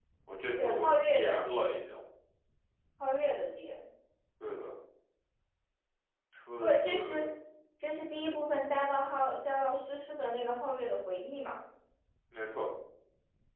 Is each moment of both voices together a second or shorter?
No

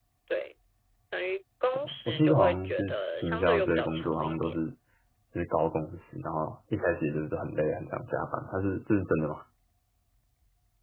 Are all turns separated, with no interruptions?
No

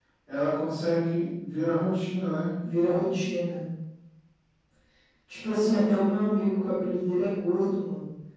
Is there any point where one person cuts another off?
No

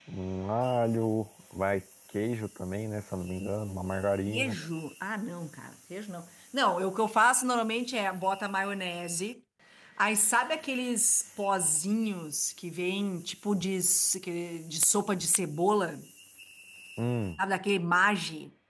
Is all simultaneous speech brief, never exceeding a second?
Yes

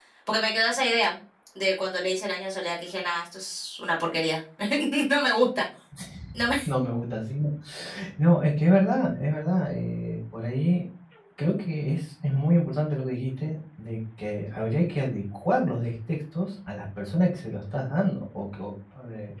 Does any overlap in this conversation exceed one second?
No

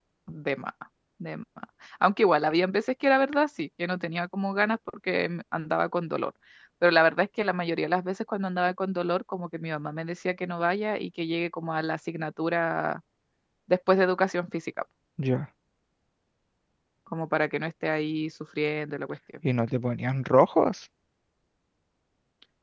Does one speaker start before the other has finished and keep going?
No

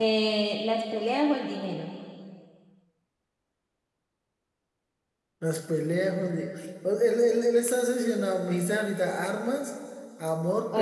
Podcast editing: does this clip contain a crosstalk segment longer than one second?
No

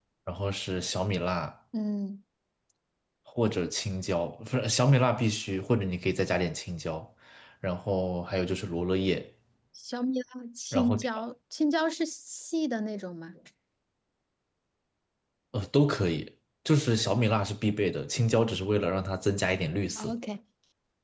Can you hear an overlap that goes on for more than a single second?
No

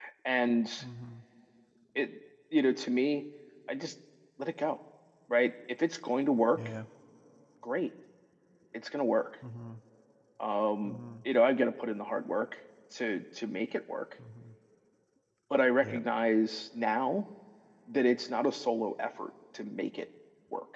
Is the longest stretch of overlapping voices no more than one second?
Yes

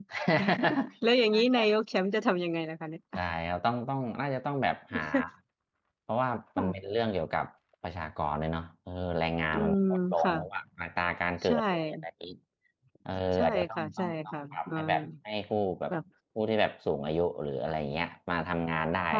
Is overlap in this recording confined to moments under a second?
No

